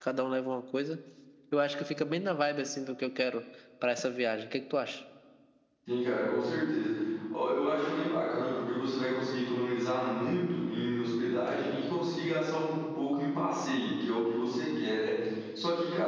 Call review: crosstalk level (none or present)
none